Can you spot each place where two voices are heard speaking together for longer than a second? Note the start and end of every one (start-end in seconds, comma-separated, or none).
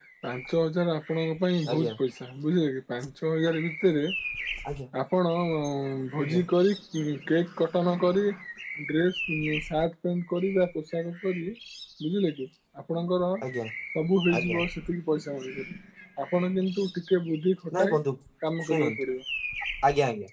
none